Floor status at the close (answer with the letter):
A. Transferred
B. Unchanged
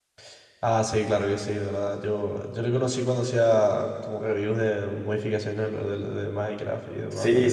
A